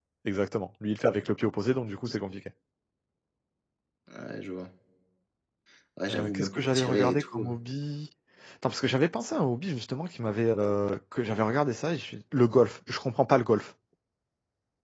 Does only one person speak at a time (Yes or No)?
No